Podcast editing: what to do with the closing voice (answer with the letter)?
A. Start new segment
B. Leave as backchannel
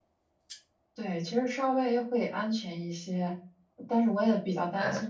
B